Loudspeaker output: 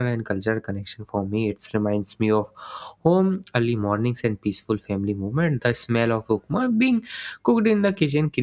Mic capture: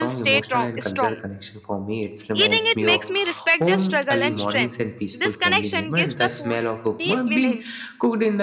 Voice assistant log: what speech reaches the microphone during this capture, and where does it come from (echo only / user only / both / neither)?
both